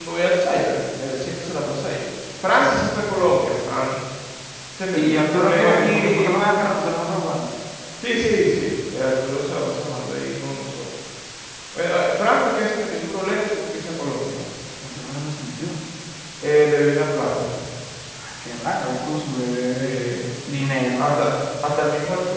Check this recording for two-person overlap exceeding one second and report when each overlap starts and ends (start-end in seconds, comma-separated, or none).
4.9-6.4